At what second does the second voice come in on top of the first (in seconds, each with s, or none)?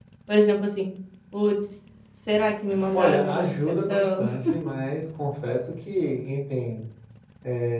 2.9 s